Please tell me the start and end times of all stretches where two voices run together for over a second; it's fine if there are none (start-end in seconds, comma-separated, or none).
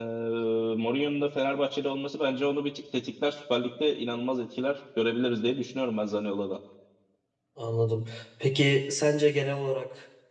none